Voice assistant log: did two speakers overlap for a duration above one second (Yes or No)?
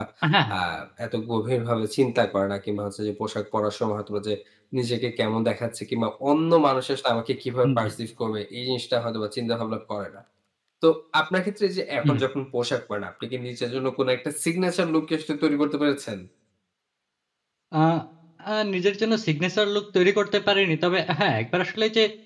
No